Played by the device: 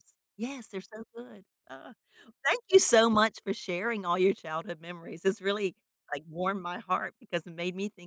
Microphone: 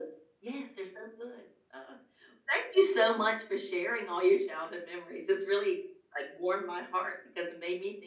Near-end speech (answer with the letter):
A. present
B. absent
B